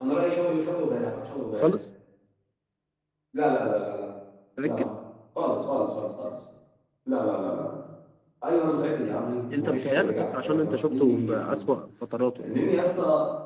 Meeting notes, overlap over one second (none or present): present